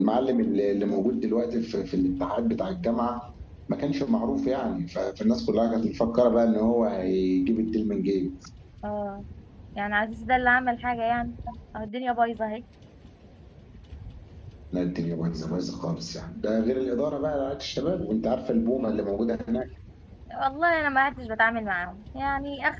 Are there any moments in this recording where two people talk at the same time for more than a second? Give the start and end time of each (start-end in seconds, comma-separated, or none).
none